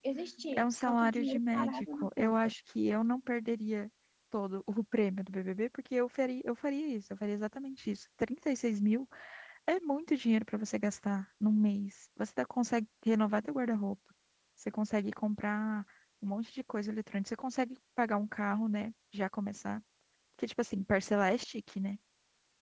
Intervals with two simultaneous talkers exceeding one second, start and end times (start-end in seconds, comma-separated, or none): 0.6-2.4